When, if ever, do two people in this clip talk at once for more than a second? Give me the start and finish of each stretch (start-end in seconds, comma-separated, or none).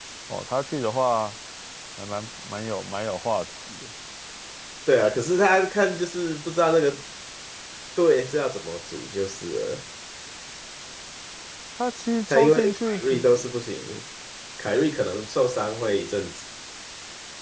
12.3-13.6